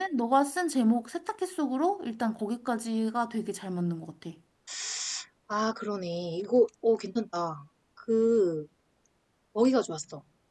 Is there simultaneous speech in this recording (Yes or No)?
No